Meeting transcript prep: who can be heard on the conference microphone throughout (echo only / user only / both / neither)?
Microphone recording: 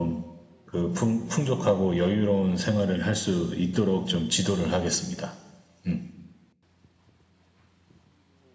echo only